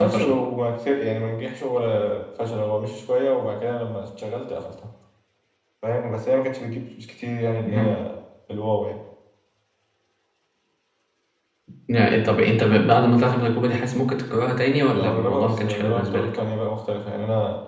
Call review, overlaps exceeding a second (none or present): present